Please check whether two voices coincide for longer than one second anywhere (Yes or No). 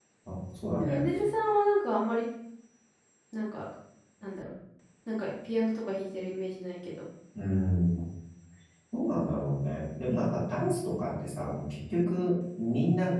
No